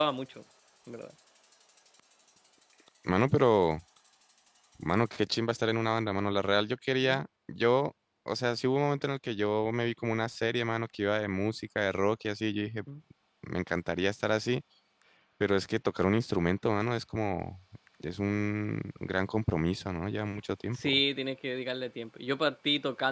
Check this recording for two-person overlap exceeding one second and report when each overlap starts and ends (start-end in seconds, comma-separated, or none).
none